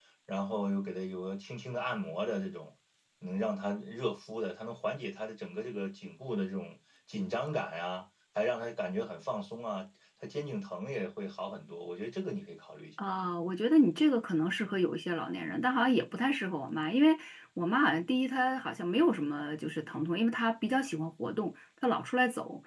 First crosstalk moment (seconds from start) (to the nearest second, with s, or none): none